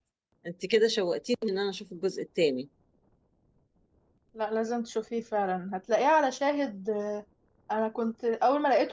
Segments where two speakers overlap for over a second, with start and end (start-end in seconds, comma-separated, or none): none